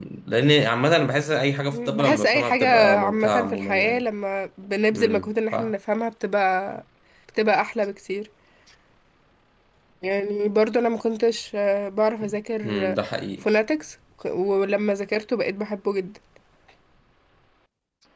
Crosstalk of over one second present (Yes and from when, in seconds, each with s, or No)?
Yes, from 1.7 s